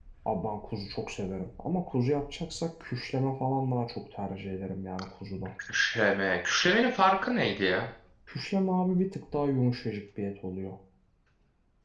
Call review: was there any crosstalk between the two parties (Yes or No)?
No